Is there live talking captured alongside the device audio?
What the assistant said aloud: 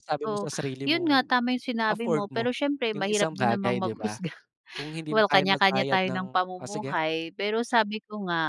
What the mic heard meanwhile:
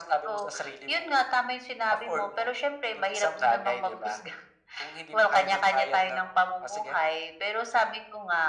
No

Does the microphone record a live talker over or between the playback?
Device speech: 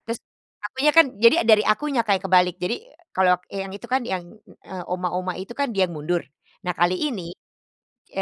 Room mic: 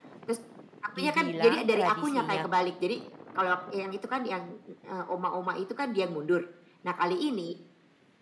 Yes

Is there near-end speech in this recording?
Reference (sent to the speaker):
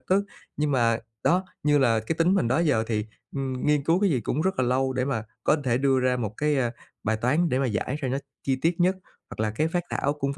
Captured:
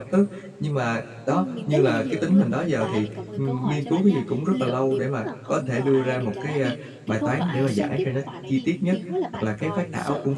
Yes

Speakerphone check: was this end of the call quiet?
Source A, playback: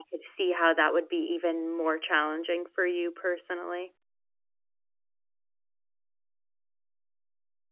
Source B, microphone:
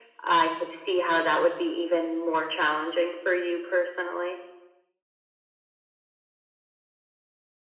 Yes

